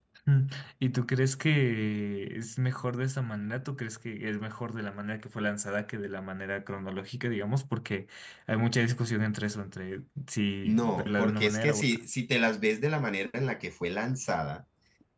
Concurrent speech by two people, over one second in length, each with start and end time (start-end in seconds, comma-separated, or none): 10.6-12.0